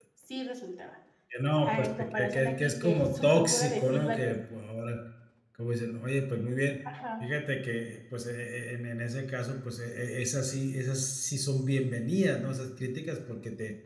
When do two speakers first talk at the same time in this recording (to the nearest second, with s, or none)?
2 s